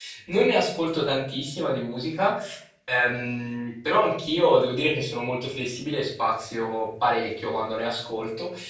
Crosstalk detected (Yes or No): No